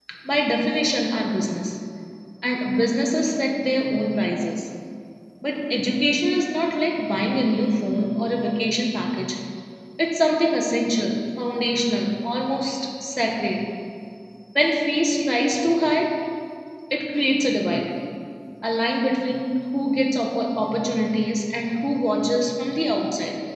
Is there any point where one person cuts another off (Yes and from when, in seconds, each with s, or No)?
No